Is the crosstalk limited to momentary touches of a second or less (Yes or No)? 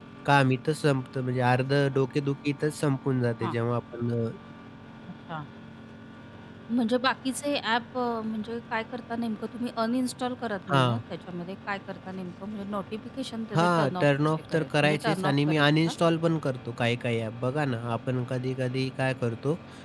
No